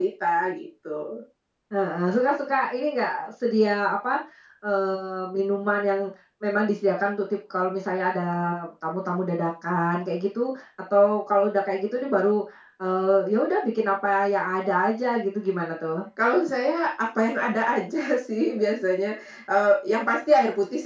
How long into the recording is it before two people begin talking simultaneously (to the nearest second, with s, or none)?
none